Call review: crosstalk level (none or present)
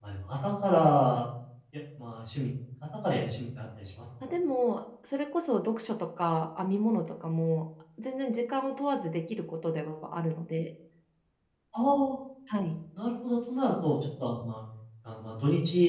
none